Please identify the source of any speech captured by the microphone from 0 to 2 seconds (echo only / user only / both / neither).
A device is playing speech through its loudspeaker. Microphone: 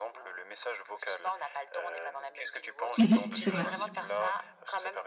echo only